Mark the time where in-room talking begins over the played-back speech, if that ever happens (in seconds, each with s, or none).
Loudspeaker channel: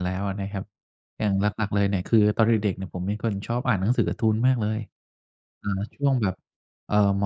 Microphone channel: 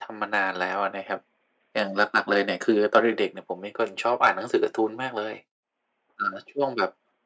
none